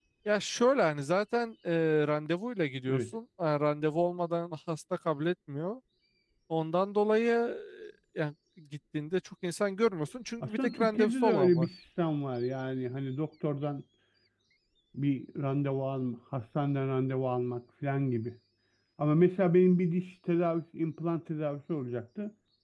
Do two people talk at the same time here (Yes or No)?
Yes